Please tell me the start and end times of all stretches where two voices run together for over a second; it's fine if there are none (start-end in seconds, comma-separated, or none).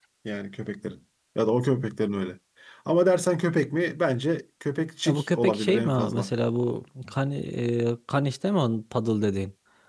5.0-6.3